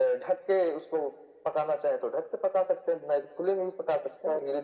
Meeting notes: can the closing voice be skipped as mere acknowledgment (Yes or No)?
Yes